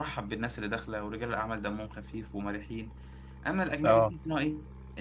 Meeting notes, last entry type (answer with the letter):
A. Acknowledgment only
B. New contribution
A